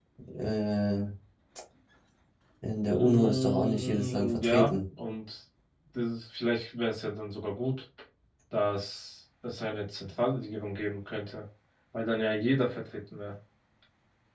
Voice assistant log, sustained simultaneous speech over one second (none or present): present